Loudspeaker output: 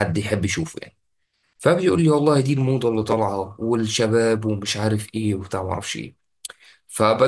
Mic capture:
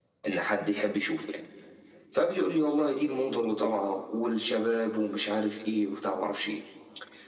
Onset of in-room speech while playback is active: none

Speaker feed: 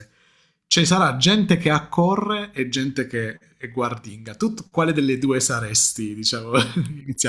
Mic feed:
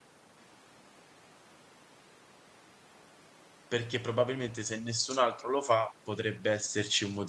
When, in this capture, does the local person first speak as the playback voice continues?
3.7 s

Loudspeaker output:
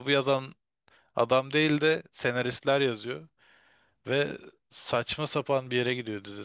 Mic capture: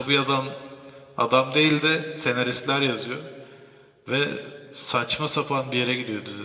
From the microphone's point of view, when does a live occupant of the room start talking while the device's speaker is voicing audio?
none

